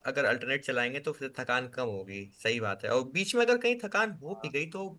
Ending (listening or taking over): listening